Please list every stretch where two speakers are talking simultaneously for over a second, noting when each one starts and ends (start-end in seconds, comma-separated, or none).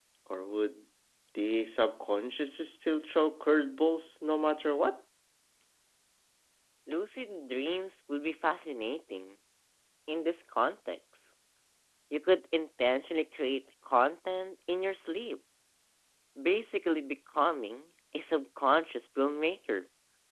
none